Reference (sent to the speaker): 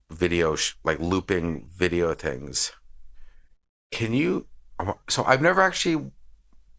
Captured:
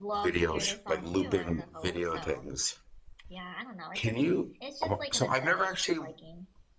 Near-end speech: present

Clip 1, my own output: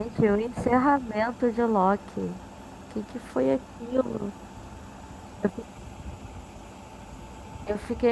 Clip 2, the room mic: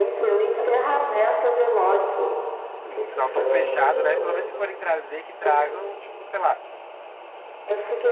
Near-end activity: present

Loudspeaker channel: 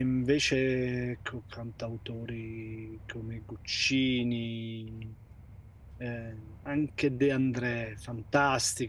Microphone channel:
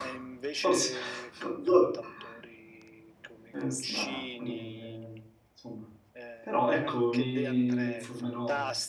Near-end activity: present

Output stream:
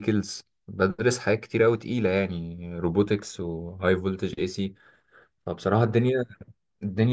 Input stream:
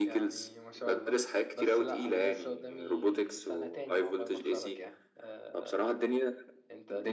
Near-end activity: present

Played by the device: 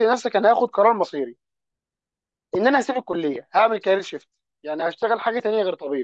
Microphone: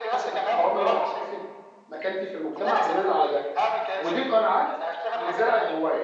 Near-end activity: present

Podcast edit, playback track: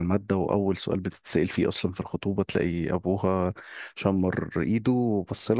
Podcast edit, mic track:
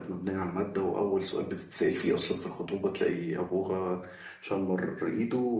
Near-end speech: none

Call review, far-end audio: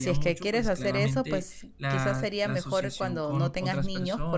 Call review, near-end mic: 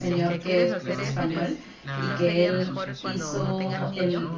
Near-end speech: present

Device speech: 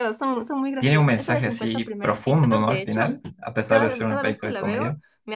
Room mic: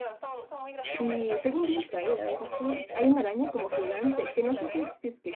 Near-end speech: present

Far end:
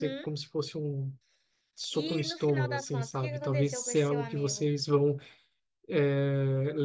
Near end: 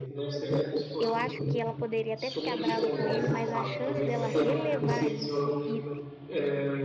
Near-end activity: present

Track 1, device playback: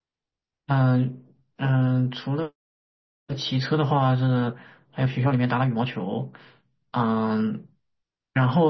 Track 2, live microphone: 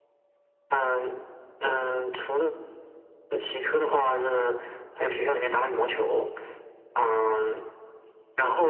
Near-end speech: none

